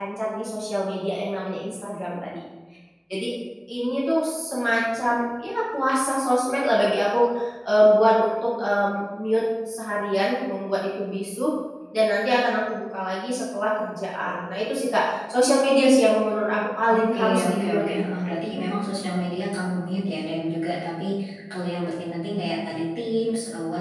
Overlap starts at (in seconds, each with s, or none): 16.5 s